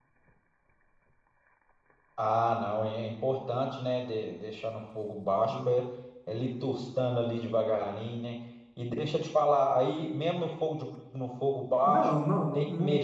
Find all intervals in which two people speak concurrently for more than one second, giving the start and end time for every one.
none

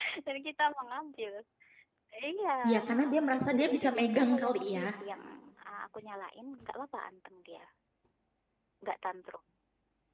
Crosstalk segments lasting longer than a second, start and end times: 2.9-4.8

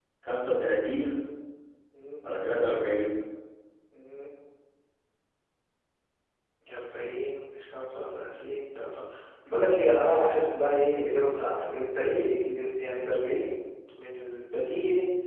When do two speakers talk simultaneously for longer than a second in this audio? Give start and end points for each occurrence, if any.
none

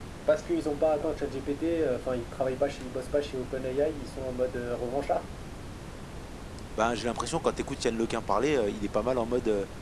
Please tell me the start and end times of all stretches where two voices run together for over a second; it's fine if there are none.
none

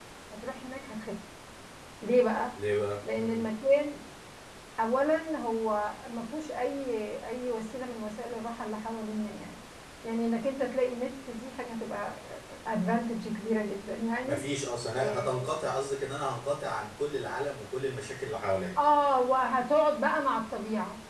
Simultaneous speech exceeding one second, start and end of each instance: none

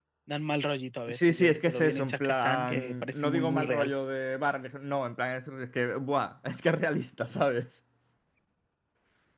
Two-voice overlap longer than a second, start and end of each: 1.1-3.9

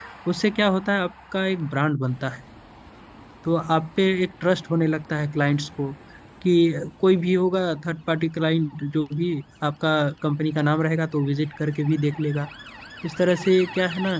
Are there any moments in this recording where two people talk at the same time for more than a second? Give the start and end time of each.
none

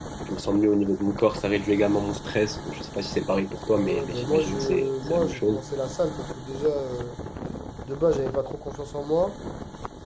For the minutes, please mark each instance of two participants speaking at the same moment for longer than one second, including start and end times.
3.7-5.6

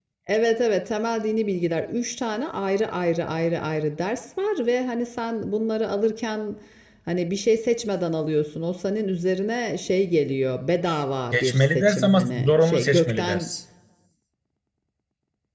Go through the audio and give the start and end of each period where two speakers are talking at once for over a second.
11.3-13.5

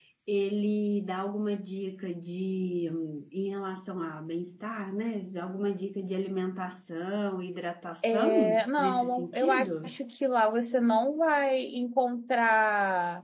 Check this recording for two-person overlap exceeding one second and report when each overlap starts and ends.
8.1-9.9

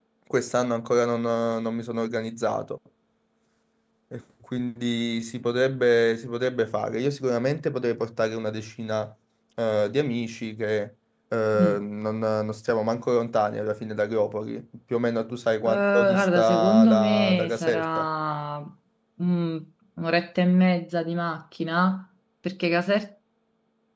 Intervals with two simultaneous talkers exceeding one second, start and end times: 15.6-18.1

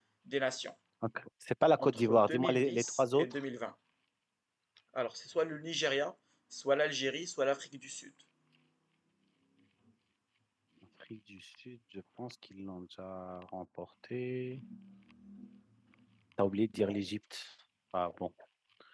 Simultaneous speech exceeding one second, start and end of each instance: 1.8-3.2

